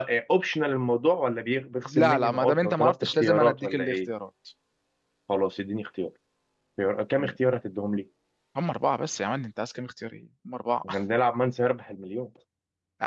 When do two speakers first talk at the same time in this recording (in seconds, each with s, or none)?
1.8 s